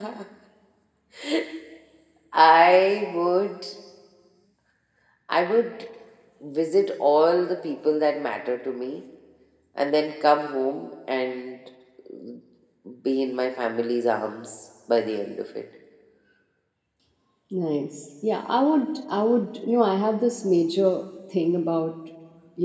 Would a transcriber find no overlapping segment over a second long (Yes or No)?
Yes